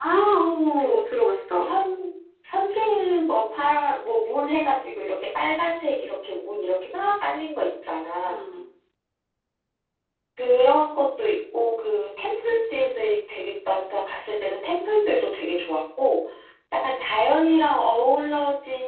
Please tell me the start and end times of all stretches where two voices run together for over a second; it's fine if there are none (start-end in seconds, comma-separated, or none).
none